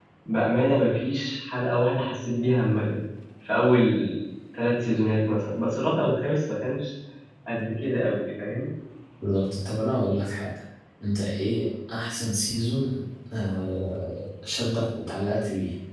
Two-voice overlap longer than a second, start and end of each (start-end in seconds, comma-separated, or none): none